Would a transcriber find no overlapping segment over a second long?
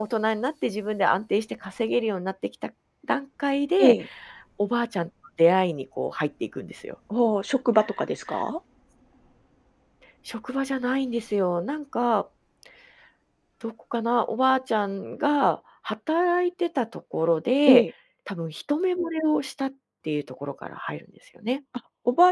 Yes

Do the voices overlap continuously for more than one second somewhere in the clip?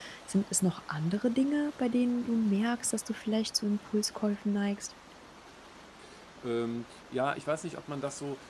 No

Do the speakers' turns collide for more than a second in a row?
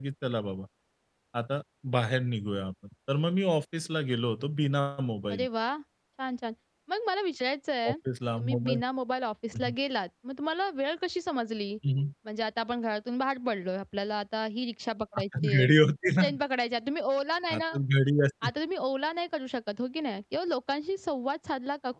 No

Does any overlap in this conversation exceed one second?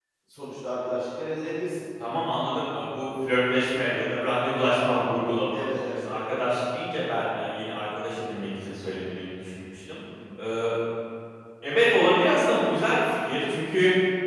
No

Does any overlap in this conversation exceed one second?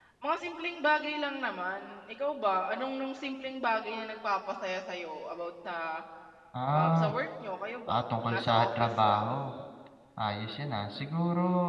Yes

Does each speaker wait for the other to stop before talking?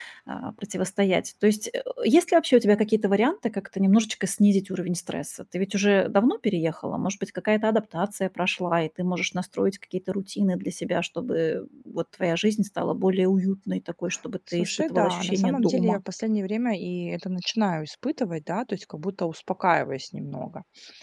No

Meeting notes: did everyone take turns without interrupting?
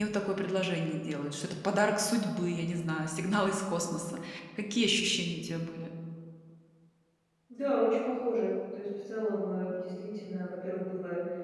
Yes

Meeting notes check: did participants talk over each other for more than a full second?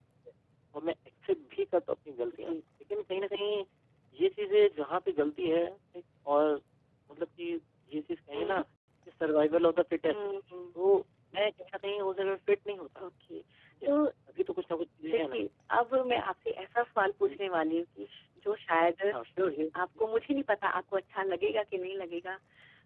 No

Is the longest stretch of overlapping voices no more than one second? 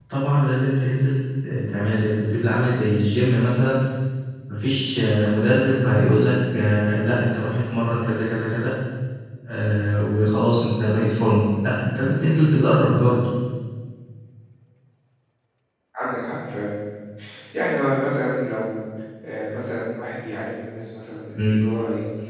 Yes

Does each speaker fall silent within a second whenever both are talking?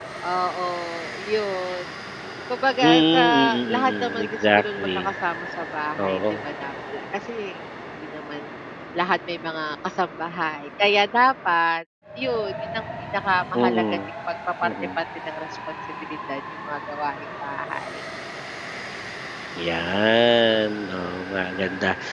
No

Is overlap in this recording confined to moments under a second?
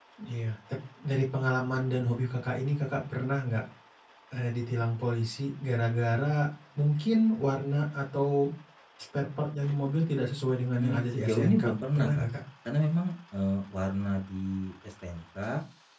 No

